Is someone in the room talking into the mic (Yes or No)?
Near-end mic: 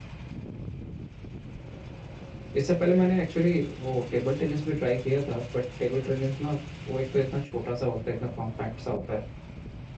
Yes